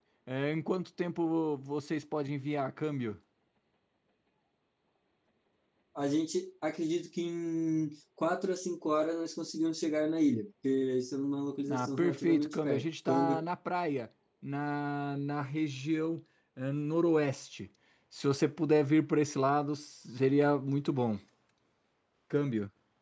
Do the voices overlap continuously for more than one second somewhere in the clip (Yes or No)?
Yes